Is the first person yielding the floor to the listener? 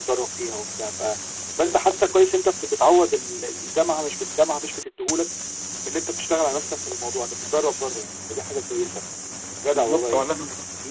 Yes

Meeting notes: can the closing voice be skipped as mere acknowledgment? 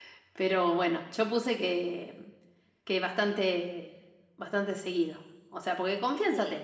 Yes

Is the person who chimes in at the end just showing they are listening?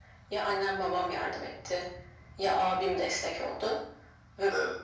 Yes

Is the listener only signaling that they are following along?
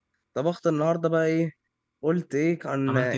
Yes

